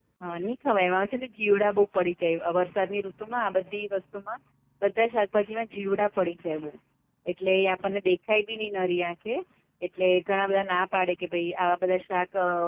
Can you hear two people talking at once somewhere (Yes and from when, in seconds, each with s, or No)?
No